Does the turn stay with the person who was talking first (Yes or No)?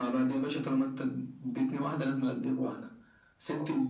Yes